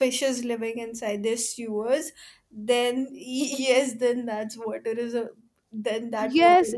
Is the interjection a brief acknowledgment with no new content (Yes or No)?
No